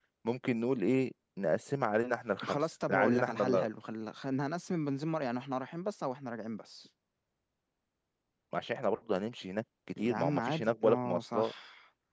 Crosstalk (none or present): present